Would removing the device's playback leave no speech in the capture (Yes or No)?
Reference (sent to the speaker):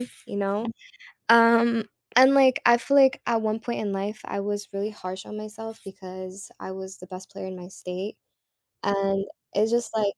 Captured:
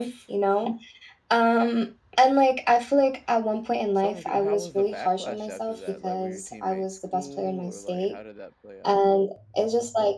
No